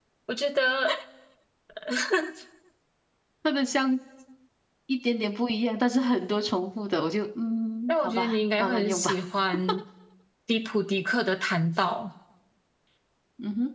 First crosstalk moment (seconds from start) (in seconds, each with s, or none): 7.9 s